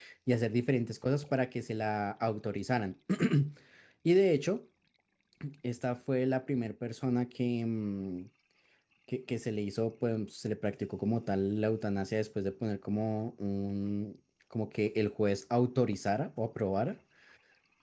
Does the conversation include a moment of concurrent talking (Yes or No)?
No